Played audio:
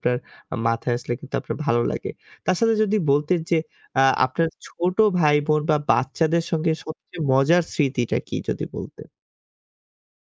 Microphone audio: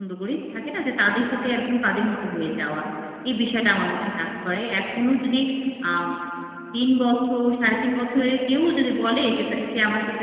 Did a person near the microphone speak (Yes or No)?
Yes